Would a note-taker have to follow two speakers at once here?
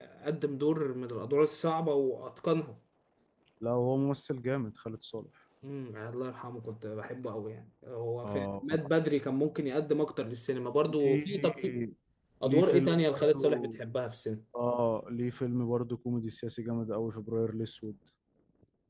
Yes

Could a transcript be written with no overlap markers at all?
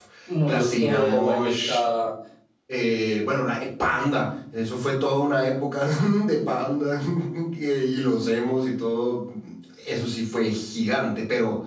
No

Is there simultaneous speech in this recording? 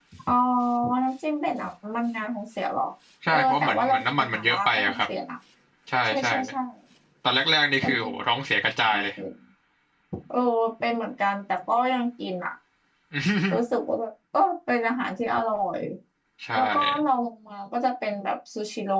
Yes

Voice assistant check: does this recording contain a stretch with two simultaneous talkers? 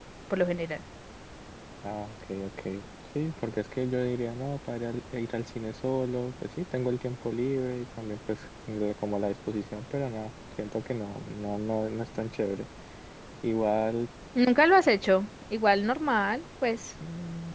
No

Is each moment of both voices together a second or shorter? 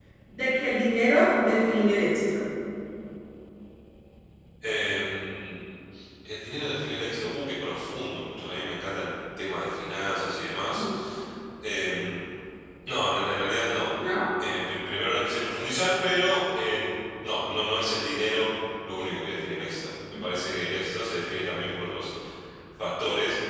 Yes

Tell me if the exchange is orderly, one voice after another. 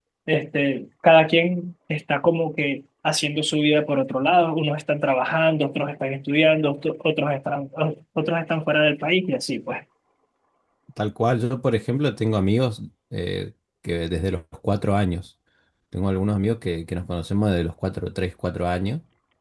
Yes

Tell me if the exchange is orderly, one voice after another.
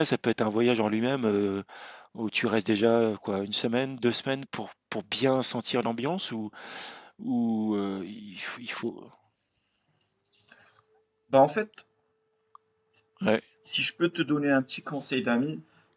Yes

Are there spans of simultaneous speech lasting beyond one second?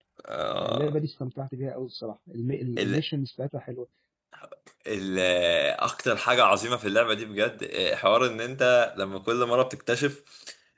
No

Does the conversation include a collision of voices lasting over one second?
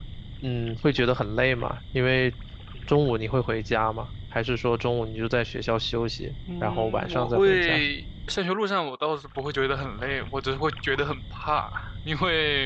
Yes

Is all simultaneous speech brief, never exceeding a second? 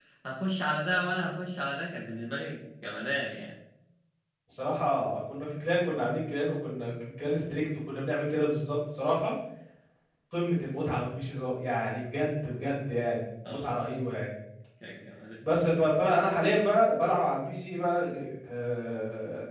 Yes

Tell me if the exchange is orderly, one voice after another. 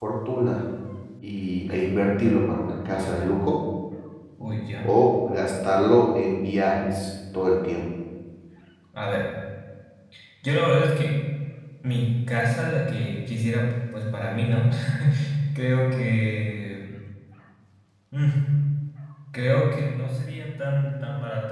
Yes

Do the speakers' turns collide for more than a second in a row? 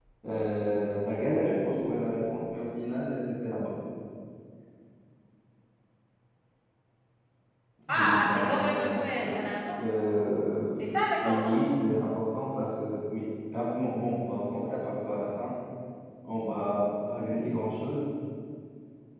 Yes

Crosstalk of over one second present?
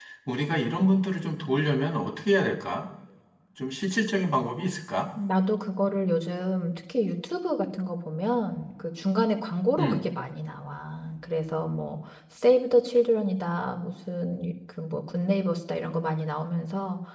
No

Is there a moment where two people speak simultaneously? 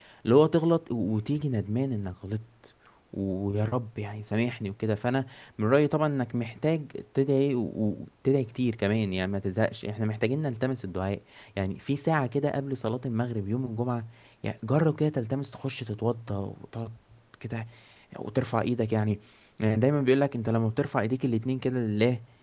No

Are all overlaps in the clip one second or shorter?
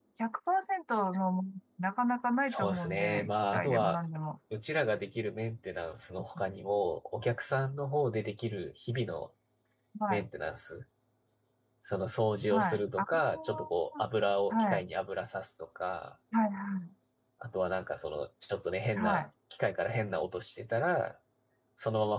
No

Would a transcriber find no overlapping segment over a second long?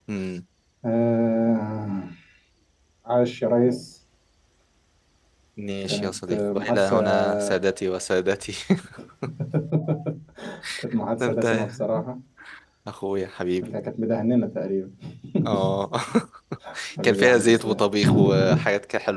No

